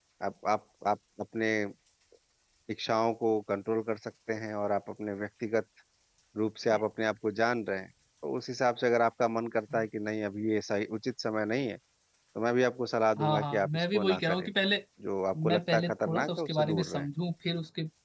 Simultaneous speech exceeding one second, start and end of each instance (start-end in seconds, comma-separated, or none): 13.2-14.5, 15.5-17.1